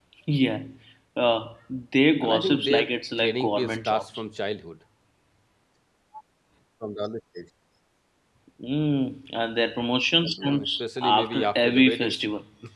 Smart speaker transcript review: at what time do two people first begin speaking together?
2.2 s

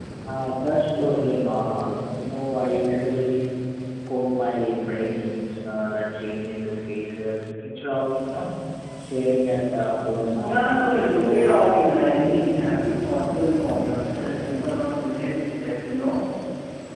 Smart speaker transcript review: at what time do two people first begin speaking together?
10.4 s

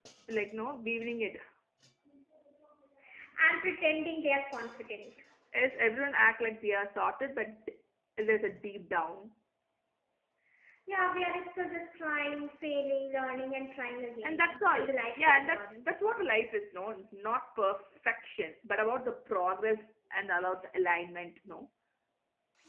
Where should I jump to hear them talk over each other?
14.2 s

